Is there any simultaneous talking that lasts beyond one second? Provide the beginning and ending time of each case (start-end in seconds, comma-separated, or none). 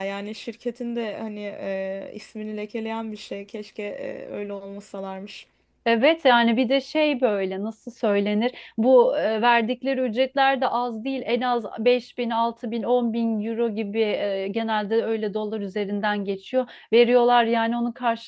none